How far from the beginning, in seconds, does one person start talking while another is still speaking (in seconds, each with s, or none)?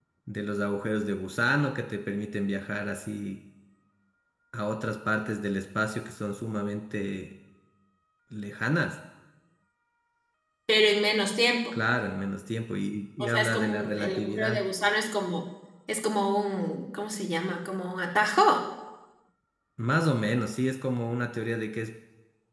13.2 s